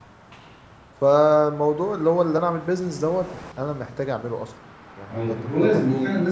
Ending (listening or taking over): taking over